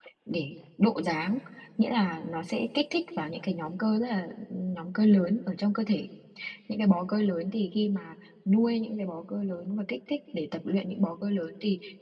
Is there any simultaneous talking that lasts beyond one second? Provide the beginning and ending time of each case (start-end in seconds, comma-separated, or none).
none